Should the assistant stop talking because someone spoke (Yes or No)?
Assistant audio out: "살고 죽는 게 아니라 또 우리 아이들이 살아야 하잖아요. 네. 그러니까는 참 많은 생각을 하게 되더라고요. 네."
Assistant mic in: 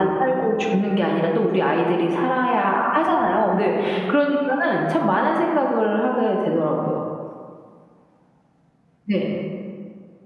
No